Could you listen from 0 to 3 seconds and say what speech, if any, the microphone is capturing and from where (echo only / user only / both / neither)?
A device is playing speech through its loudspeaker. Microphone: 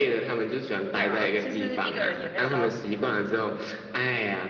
both